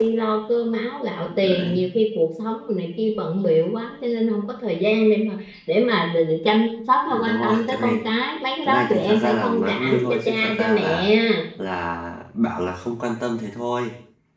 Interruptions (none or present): present